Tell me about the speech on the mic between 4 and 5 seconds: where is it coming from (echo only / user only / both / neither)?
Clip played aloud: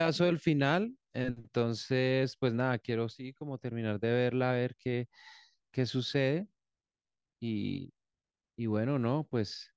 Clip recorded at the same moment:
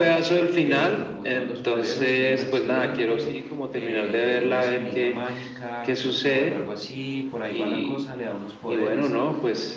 both